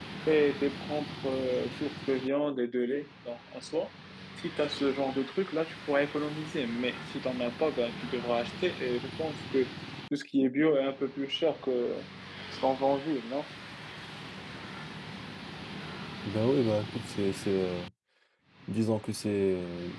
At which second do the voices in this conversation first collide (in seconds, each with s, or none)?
none